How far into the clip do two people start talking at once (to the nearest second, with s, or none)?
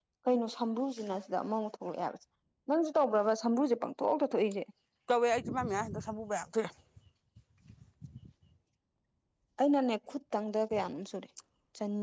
none